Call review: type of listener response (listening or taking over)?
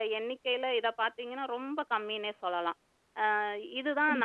listening